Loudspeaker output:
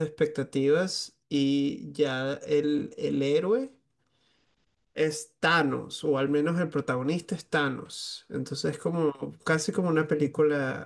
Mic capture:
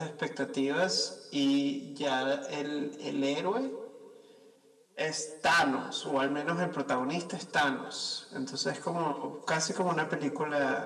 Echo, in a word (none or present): present